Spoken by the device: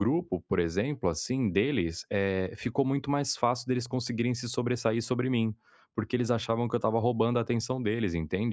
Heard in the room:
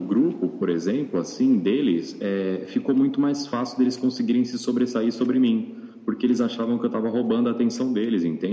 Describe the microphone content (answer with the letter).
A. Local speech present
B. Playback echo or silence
B